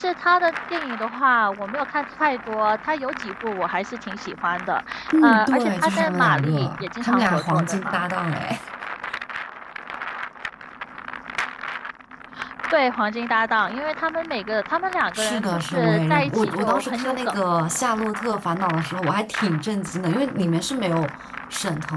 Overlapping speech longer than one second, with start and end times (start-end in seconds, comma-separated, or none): 5.2-8.0, 15.1-17.4